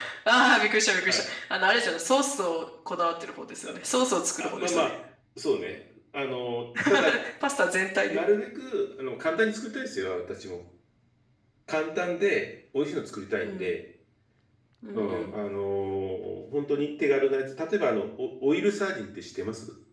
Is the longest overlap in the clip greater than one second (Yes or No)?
No